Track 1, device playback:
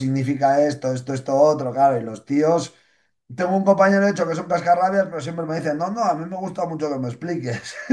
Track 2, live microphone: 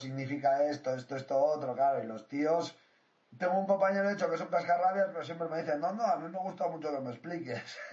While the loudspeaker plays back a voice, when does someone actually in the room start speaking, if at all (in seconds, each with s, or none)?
none